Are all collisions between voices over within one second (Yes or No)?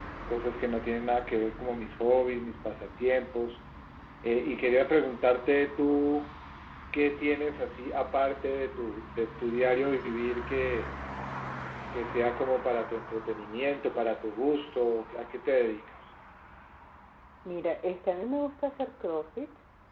Yes